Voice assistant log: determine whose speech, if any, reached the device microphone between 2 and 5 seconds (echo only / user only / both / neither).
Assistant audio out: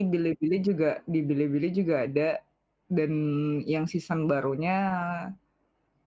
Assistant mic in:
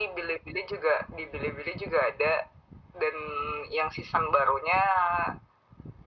echo only